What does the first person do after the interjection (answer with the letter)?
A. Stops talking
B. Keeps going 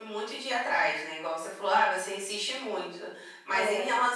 B